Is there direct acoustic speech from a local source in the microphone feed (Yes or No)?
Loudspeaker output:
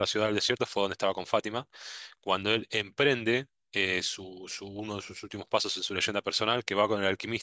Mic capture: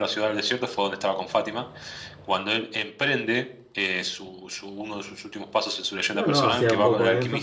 Yes